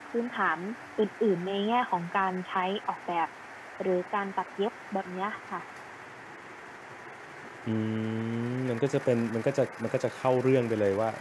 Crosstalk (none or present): none